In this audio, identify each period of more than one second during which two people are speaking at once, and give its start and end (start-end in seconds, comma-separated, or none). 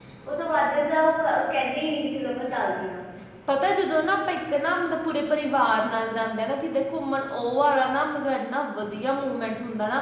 none